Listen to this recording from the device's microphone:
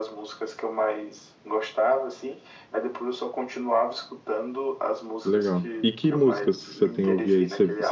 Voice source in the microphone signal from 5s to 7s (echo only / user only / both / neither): both